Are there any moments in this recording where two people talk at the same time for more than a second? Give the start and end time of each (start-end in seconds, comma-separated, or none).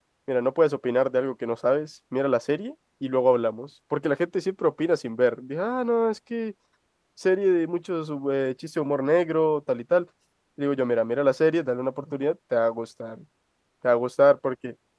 none